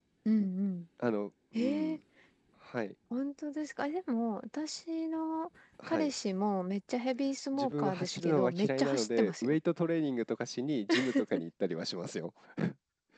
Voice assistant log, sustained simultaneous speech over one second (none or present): present